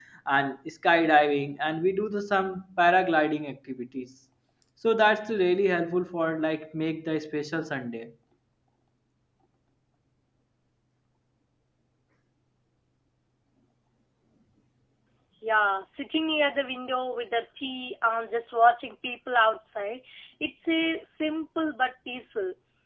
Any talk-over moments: No

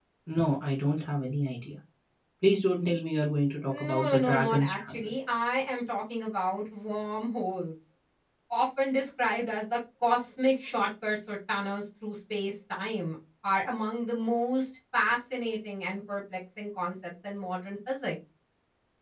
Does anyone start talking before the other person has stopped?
Yes, from 3.7 s

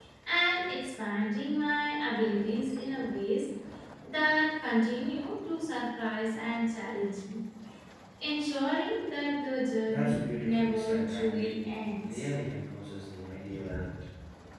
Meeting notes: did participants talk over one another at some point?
Yes, from 9.9 s

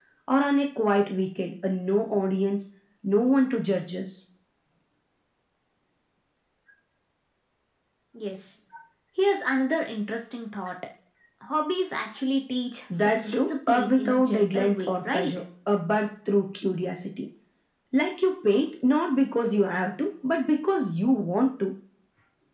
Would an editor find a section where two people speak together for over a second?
Yes, from 12.9 s

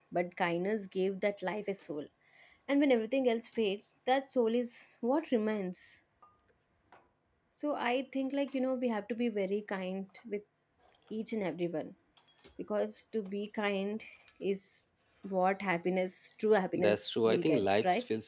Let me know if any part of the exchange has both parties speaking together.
Yes, from 16.7 s

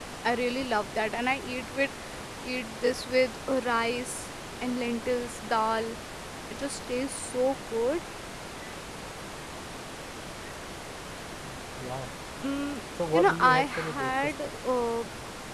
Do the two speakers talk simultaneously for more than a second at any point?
Yes, from 13.1 s

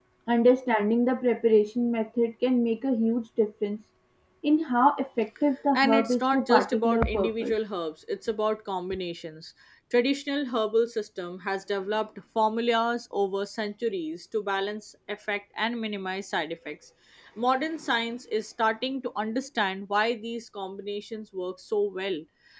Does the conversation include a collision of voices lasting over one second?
Yes, from 5.7 s

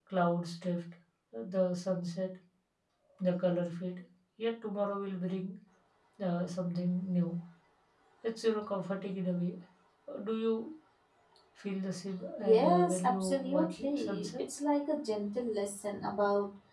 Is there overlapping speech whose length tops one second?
Yes, from 12.4 s

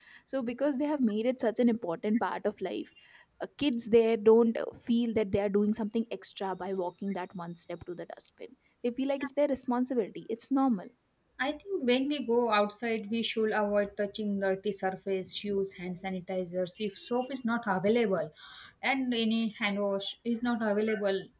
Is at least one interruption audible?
No

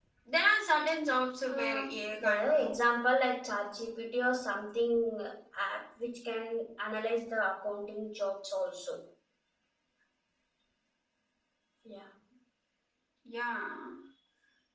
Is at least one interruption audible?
Yes, from 1.5 s

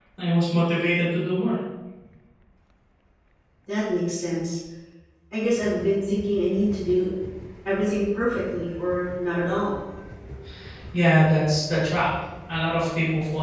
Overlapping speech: No

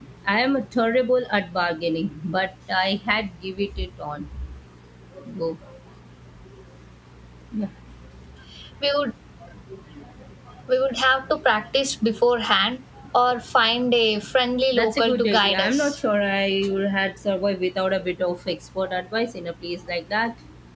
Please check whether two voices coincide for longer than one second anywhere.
Yes, from 14.7 s

